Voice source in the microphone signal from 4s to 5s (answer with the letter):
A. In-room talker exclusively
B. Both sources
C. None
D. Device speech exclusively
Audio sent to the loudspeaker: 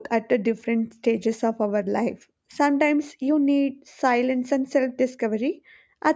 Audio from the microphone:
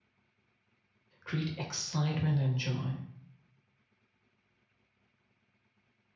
C